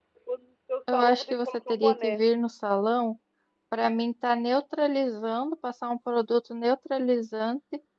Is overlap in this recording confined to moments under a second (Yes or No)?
No